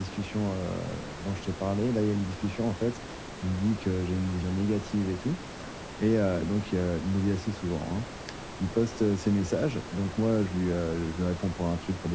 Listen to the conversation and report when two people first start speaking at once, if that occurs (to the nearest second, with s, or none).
none